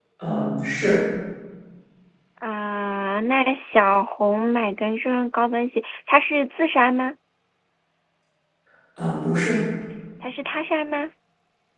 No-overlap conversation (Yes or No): Yes